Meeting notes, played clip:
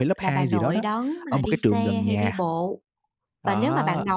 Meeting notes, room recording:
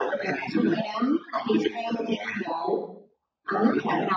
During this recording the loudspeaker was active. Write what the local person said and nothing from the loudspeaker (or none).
Ừm.